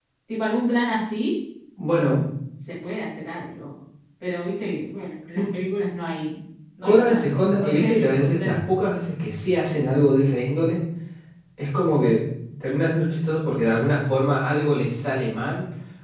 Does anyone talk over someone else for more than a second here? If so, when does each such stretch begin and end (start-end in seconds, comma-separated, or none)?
6.8-8.7